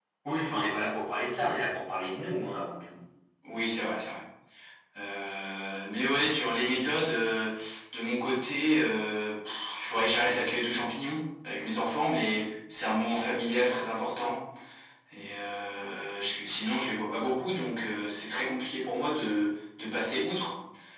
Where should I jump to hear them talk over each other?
none

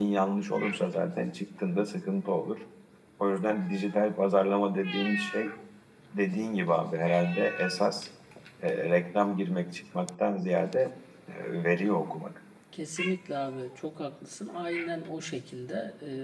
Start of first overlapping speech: none

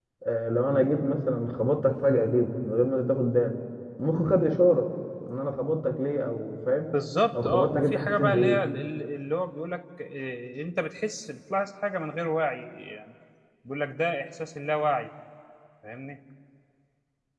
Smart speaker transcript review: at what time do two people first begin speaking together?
7.3 s

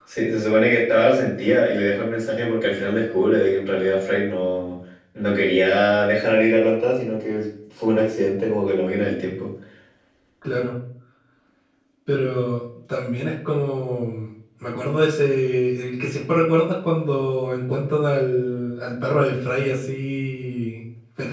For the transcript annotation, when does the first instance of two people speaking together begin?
none

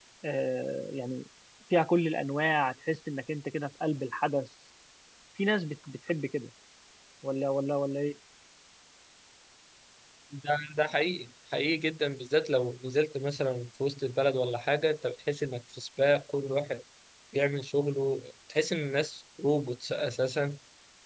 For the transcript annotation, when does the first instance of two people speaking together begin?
none

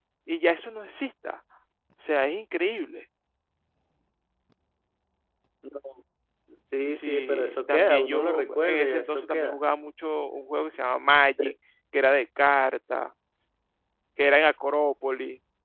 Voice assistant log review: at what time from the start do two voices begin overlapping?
6.9 s

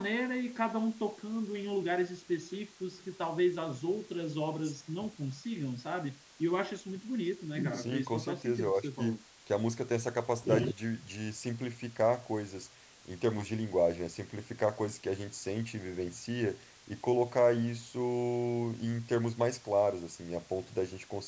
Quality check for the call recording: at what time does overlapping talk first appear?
7.7 s

